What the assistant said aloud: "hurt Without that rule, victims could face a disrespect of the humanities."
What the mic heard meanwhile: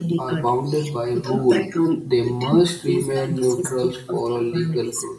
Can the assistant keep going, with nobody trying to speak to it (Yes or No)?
No